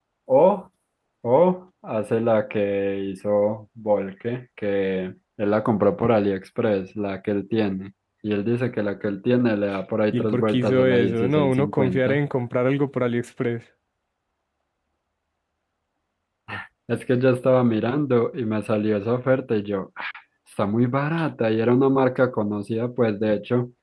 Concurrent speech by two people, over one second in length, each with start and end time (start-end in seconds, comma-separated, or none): 10.1-12.2